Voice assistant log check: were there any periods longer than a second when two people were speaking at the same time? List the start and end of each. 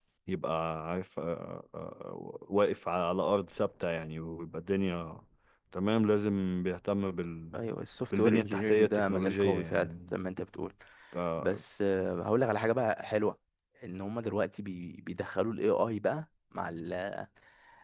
8.1-10.2

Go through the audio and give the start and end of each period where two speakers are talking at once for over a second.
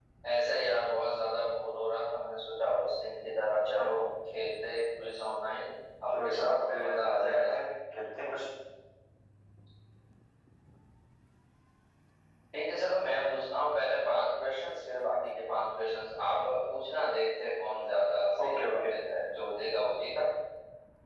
6.1-7.5

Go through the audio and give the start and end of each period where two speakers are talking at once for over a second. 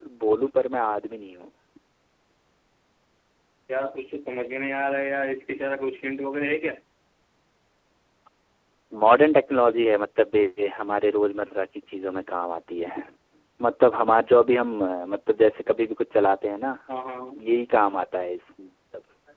none

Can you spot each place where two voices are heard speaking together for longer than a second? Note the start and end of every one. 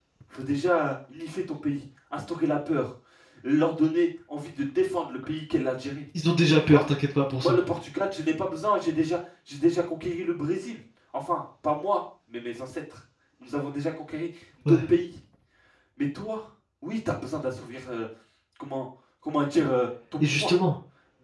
none

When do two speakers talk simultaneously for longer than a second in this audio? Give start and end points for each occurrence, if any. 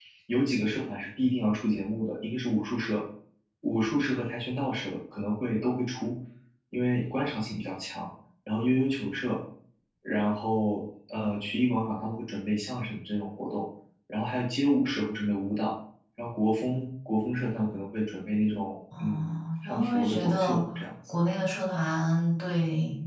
19.0-20.6

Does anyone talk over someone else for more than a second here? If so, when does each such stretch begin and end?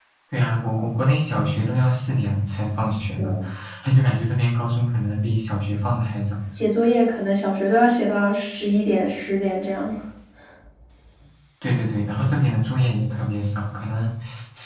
none

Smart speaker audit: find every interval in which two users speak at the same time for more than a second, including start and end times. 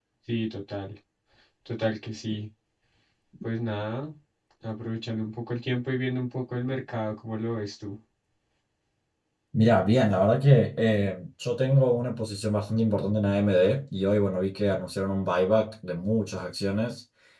none

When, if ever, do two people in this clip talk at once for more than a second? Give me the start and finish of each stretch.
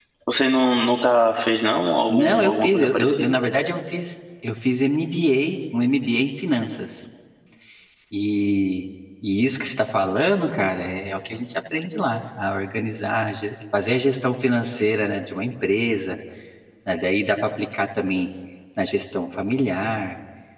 2.1-3.3

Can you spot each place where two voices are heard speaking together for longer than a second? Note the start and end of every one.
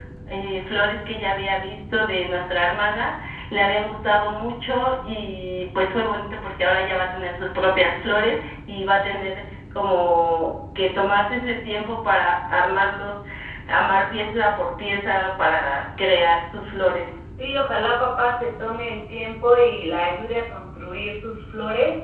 none

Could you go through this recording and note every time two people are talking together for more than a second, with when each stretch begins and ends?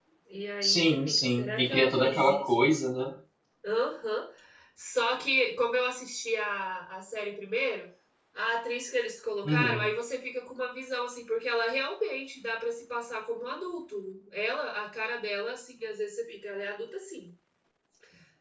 0.6-2.5

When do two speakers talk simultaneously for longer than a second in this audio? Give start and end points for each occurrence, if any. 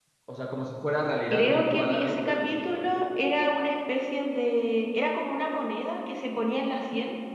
1.3-2.8

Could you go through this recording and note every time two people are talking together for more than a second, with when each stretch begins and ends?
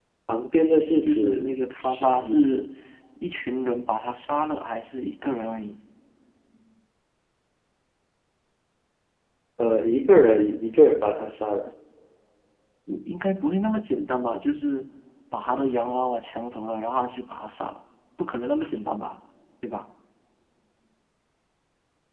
1.0-2.6

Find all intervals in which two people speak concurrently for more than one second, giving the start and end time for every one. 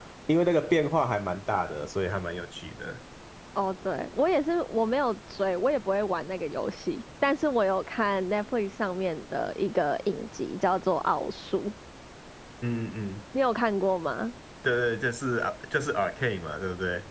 none

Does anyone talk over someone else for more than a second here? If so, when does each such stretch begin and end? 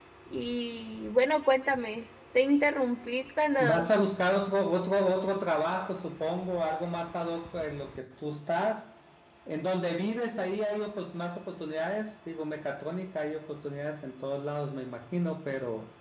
none

